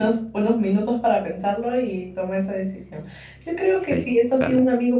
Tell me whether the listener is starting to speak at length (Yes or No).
No